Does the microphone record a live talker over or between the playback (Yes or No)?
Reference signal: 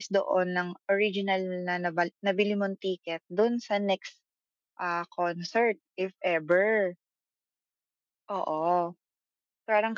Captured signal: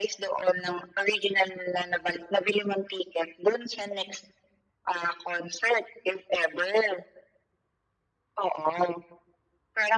No